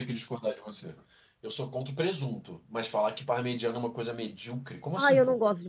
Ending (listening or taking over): taking over